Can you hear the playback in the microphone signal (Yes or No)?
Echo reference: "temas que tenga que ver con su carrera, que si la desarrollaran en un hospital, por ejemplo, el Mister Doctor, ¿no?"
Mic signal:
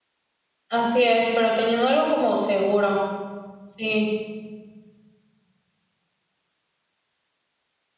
No